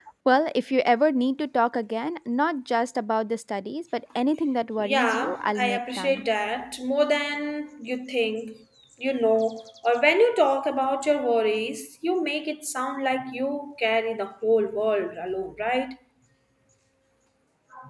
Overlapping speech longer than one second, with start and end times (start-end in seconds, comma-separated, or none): 4.8-6.2